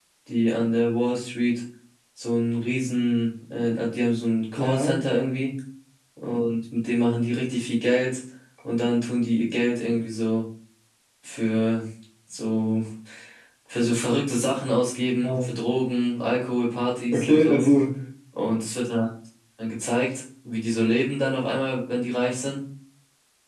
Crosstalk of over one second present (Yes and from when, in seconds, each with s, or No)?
No